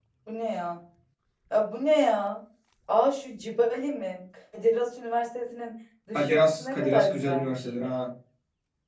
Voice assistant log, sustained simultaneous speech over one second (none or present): present